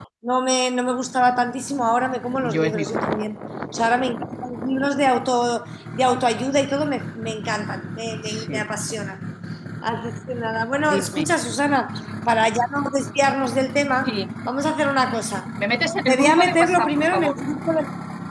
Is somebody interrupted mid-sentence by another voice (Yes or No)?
Yes